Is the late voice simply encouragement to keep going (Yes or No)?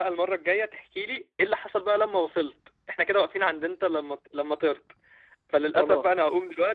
Yes